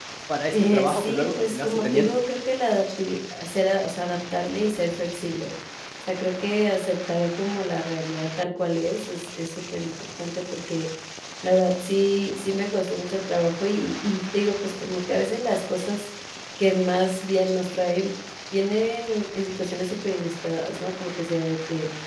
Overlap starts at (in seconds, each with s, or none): 0.5 s